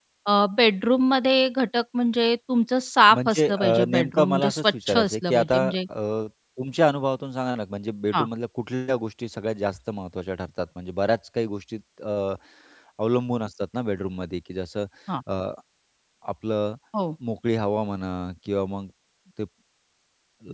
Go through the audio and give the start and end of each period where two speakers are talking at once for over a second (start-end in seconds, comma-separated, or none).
3.1-5.8